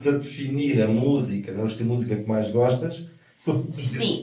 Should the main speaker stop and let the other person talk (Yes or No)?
No